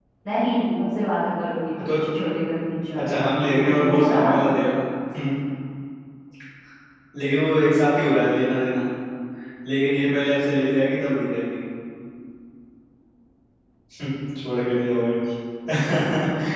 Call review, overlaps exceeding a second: present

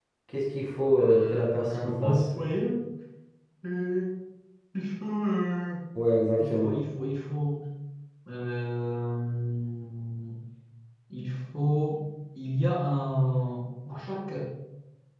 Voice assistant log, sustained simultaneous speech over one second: present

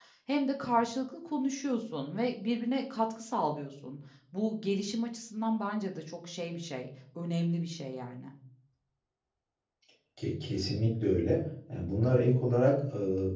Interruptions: none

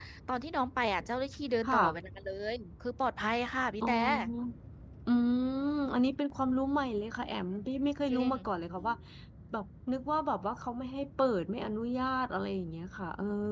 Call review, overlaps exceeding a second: none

